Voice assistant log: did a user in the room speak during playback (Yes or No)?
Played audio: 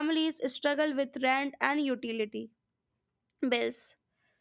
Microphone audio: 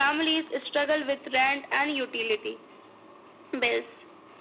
No